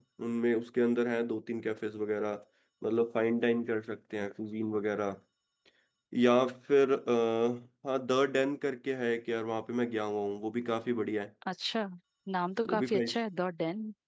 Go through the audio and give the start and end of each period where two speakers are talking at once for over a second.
none

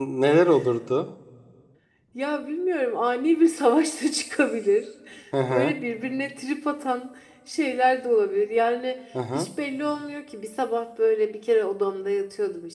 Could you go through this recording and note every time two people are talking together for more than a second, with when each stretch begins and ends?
none

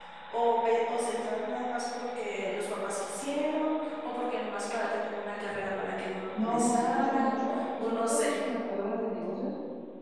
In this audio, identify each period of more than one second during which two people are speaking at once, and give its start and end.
6.3-8.3

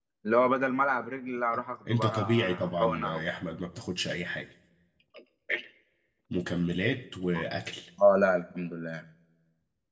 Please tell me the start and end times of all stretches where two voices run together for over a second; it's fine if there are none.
1.9-3.2

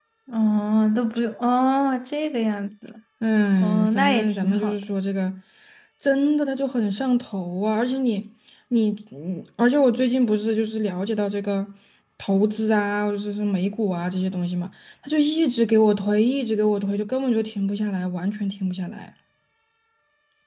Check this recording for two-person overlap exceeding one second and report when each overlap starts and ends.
3.6-4.9

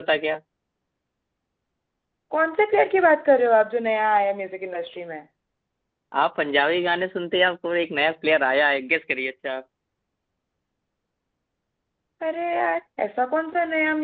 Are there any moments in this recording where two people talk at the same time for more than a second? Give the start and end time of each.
none

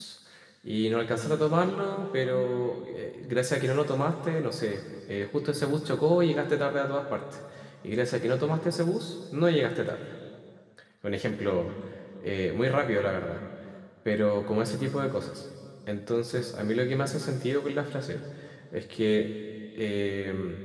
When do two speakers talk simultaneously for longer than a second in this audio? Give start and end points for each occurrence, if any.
none

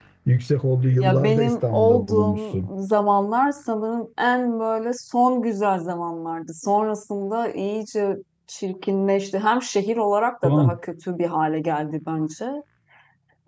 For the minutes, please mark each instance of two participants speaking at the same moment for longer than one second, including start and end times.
1.0-2.7

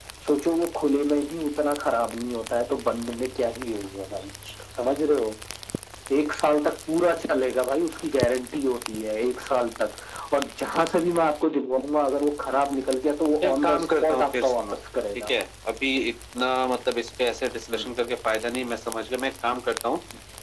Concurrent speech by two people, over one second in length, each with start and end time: 13.4-14.8

